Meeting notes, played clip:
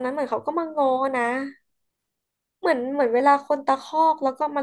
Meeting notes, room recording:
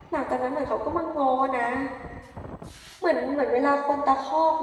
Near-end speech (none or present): none